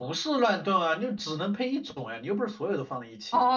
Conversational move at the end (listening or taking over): taking over